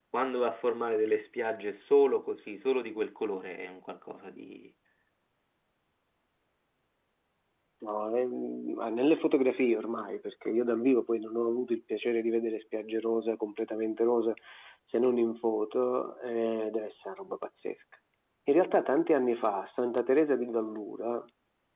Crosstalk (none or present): none